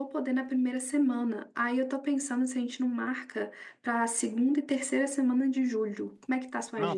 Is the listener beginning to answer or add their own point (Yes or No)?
Yes